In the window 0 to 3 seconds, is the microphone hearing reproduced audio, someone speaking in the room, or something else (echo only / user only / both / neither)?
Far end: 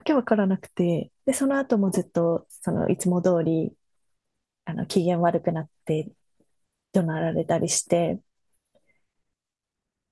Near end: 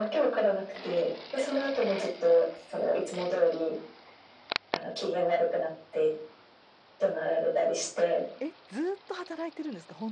echo only